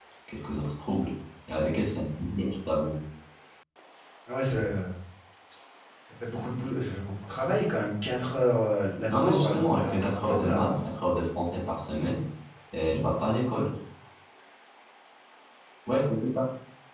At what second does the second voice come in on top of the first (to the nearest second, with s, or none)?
9 s